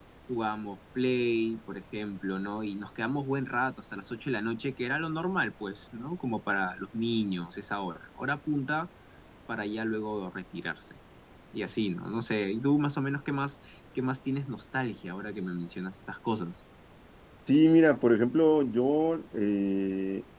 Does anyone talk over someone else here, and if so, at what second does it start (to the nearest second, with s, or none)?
none